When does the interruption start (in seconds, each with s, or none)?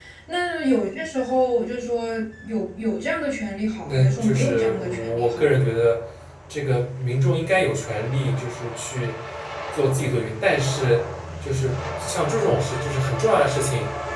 3.8 s